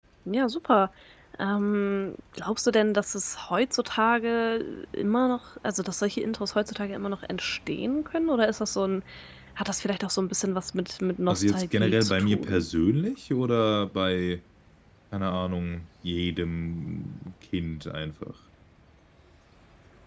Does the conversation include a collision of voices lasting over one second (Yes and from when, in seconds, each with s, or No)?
Yes, from 11.3 s